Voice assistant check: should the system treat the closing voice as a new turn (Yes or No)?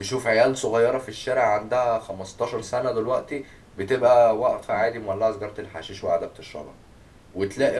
No